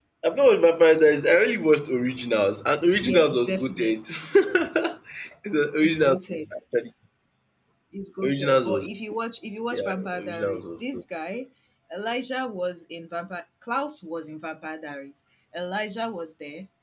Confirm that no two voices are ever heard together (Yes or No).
No